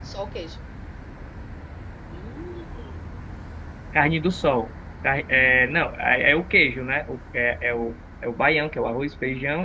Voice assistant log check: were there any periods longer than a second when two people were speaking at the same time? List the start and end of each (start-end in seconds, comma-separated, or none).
none